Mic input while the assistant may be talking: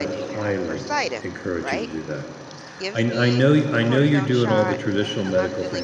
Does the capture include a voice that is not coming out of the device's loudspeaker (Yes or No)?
Yes